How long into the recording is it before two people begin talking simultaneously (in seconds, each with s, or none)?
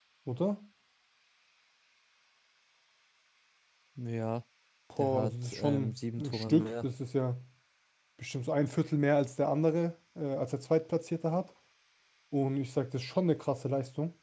5.0 s